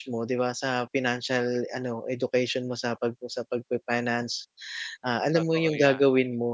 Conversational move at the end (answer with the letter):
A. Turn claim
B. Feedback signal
B